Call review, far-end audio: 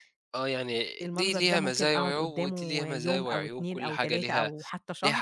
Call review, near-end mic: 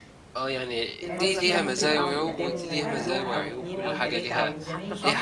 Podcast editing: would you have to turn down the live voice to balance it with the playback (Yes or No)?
No